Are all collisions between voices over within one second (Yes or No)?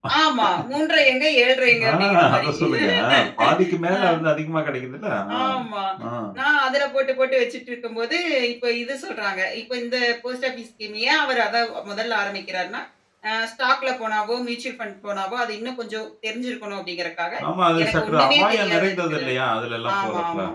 No